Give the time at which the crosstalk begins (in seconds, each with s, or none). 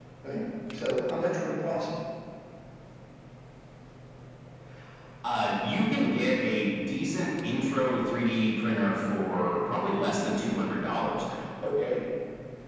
none